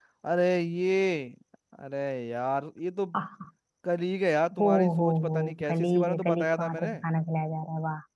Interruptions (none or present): present